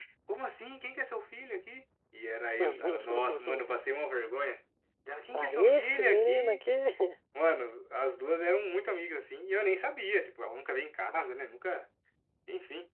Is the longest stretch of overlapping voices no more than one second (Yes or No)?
No